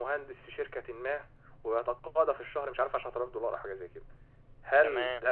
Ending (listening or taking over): listening